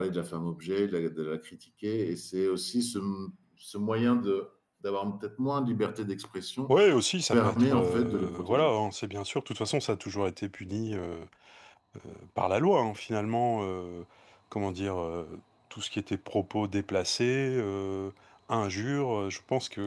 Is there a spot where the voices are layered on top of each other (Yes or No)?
Yes